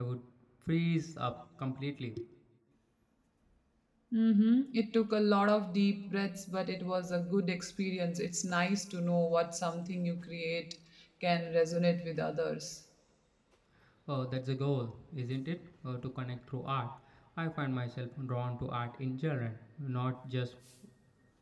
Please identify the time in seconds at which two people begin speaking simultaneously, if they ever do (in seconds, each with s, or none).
none